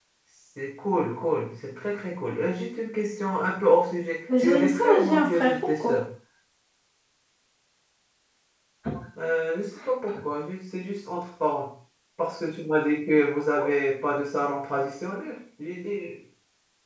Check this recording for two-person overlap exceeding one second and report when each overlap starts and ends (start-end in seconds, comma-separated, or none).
4.4-6.0